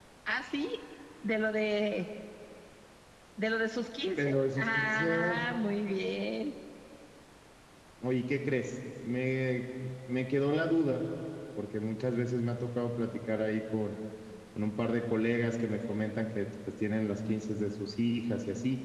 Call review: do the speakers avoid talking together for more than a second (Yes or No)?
No